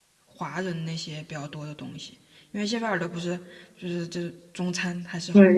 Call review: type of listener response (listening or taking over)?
taking over